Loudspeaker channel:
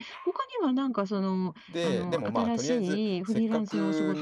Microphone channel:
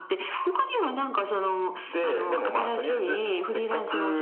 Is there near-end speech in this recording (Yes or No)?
No